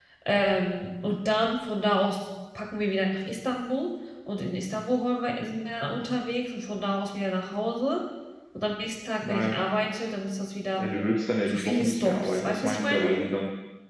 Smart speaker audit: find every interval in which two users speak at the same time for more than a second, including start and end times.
11.5-13.1

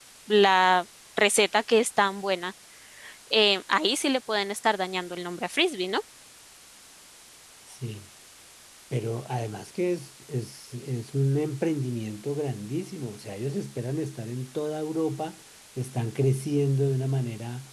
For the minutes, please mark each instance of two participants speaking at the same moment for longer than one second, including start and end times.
none

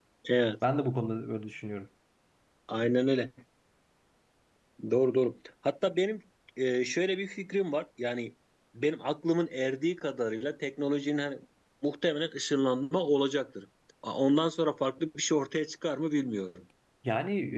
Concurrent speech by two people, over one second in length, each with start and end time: none

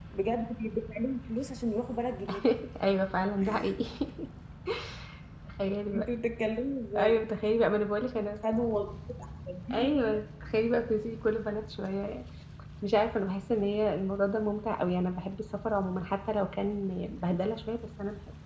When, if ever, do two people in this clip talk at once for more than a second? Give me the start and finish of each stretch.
none

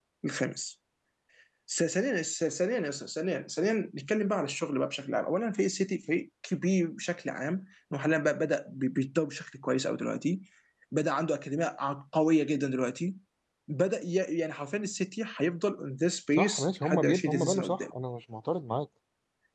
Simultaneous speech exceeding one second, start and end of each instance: 16.4-17.9

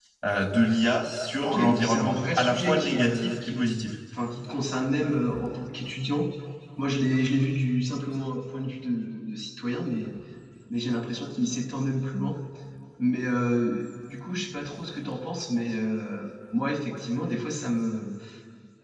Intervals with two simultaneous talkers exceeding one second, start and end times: 1.4-3.7

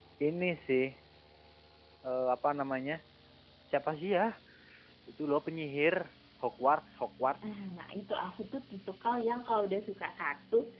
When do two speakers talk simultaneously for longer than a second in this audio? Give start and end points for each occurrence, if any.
none

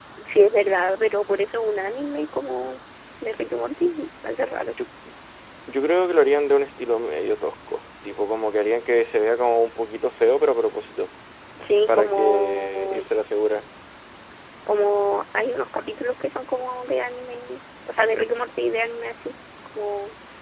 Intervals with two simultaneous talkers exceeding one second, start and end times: 11.9-13.1

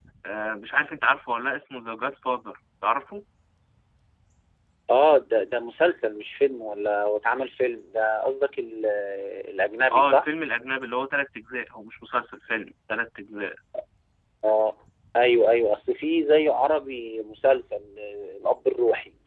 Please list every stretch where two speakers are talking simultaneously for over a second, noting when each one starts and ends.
none

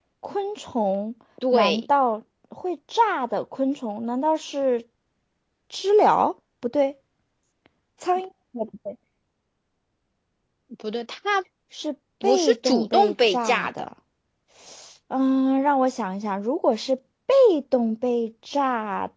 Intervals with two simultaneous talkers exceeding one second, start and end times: 12.2-13.9

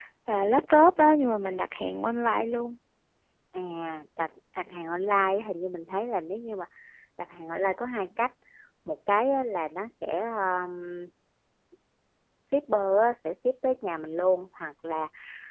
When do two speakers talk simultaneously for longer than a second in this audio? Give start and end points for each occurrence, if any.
none

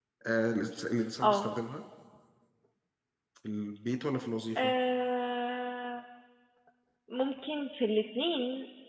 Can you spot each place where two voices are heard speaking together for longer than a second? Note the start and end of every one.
none

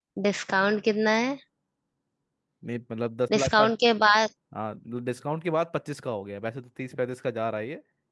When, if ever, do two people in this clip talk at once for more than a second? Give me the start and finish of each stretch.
none

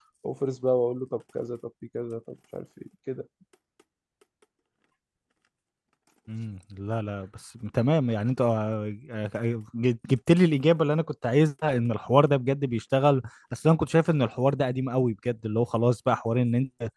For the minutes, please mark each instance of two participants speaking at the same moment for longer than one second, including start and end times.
none

